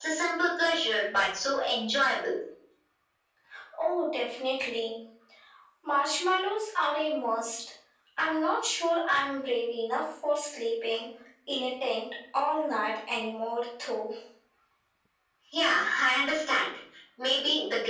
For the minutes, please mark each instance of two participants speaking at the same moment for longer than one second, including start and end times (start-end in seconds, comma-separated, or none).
none